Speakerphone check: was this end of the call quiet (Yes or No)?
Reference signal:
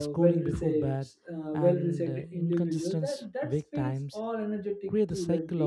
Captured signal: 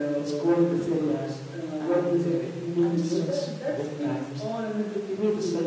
No